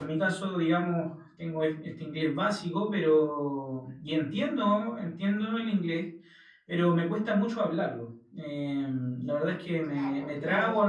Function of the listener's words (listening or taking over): listening